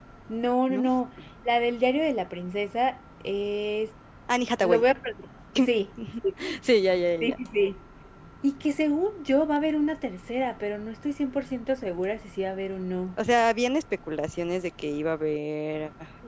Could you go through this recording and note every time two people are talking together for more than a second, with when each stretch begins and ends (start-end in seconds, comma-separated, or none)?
none